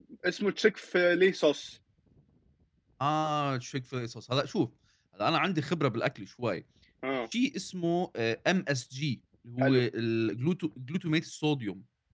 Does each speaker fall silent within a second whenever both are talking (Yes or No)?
Yes